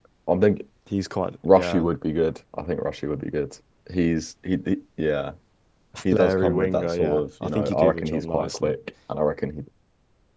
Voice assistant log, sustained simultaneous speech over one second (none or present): present